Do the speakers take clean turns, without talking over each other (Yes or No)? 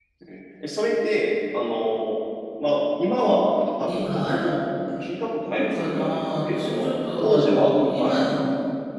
No